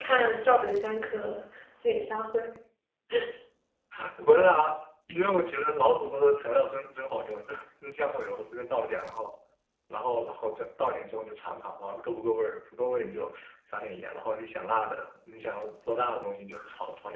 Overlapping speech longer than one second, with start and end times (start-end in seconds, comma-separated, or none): none